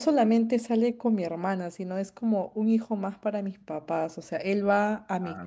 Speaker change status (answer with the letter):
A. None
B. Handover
A